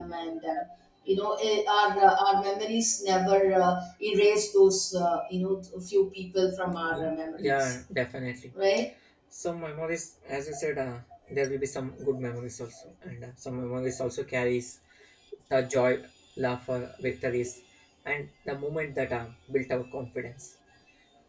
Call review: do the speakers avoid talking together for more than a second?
Yes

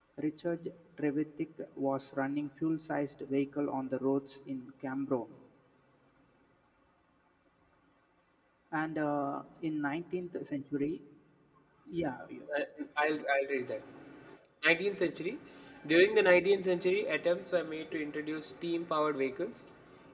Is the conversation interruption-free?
Yes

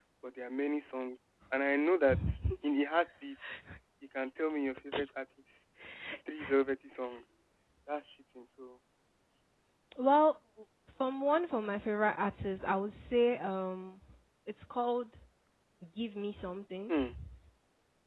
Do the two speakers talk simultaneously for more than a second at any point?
No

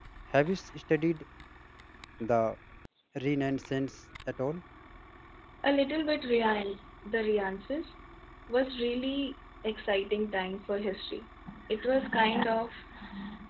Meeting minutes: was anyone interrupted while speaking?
No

